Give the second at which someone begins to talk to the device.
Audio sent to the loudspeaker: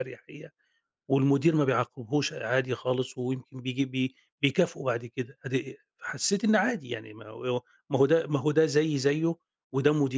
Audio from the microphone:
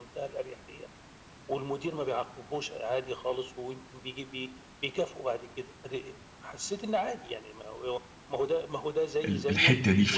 9 s

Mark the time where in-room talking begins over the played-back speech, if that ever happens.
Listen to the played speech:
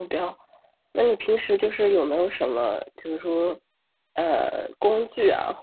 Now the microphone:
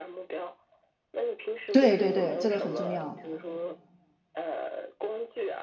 2 s

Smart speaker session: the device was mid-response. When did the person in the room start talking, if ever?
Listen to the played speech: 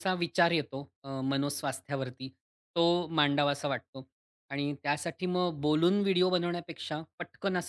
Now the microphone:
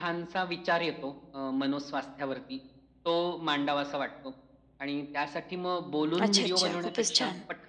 6 s

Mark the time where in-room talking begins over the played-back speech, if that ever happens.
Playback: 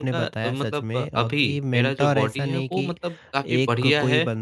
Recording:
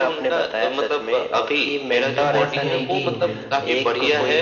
2 s

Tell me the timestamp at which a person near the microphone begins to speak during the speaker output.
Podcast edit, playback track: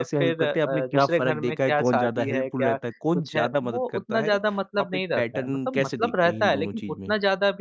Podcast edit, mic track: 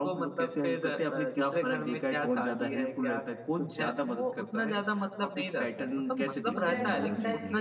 7 s

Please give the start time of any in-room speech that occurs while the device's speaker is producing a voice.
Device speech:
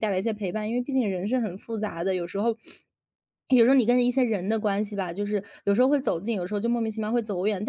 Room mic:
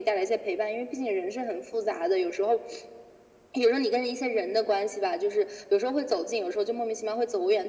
none

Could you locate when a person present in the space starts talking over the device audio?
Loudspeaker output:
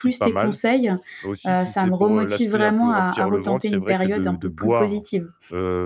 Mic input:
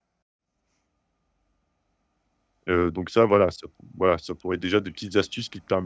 3 s

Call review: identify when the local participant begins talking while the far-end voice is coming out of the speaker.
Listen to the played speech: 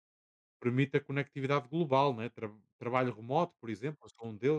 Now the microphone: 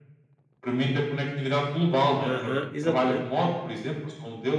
2 s

